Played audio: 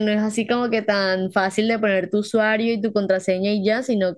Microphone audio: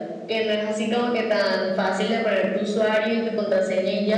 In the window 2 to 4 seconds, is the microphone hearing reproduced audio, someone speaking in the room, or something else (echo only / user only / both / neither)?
echo only